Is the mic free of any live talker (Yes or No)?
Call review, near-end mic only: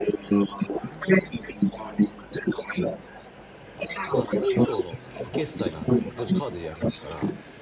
No